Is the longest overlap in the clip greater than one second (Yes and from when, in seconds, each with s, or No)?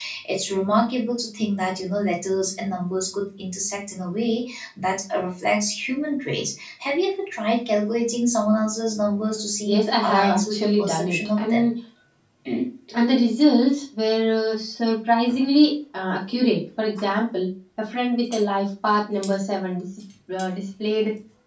Yes, from 9.7 s